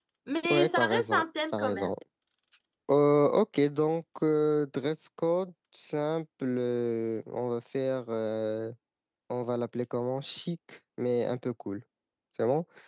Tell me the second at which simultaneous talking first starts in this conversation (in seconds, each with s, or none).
0.5 s